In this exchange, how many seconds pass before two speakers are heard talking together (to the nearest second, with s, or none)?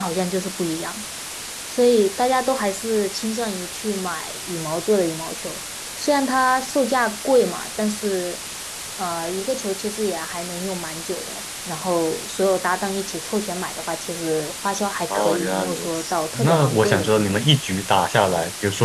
15 s